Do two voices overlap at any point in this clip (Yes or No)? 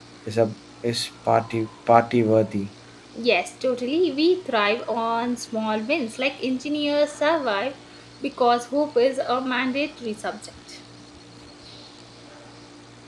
No